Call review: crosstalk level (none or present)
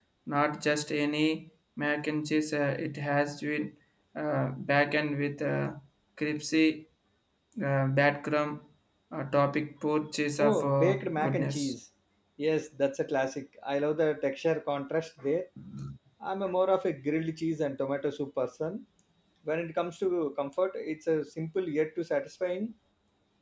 present